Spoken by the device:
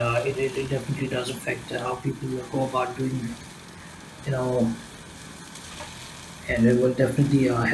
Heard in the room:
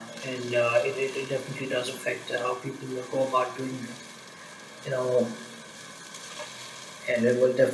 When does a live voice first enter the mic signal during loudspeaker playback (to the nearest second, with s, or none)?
none